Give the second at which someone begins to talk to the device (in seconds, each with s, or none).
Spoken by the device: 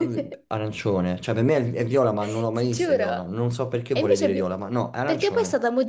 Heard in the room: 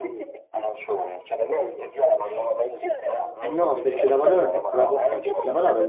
3.4 s